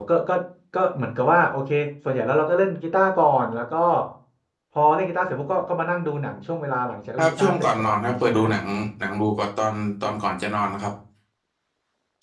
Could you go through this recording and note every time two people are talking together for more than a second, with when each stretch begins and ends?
7.2-8.4

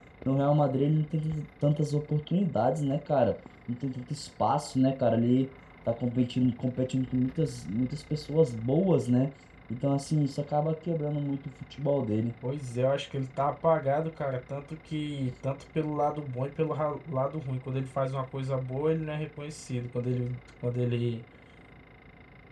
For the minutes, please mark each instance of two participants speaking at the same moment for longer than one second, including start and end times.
none

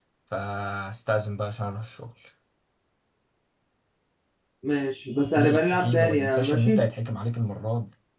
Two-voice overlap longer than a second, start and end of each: 5.3-6.9

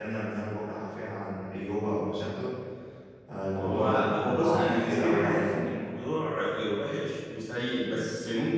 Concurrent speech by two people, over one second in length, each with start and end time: 3.6-5.5

